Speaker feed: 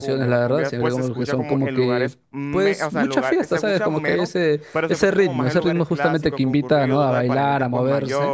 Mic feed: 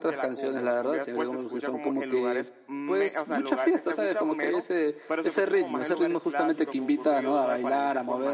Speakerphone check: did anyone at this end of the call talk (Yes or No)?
No